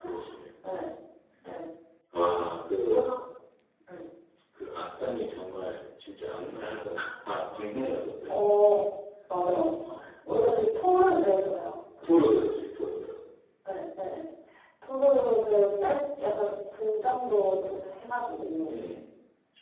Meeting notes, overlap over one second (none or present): none